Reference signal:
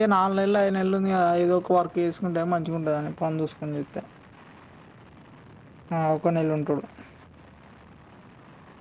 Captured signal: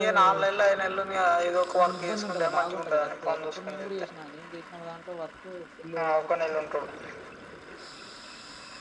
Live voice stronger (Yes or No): No